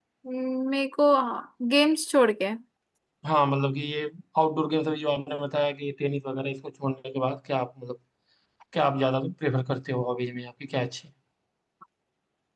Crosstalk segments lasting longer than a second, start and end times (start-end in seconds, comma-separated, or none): none